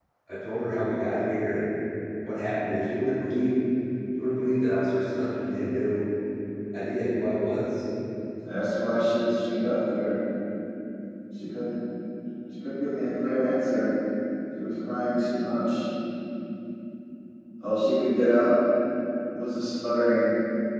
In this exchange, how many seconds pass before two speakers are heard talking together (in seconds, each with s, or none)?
none